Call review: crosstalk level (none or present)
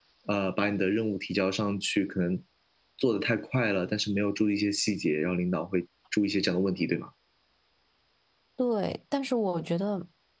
none